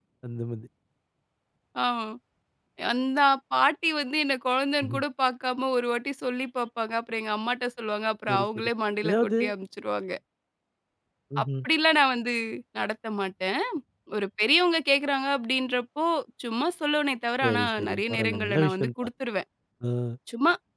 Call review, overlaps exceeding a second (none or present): present